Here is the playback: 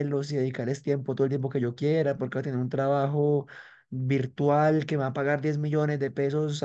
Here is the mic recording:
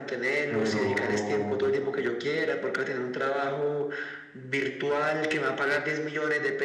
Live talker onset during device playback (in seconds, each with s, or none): 0.5 s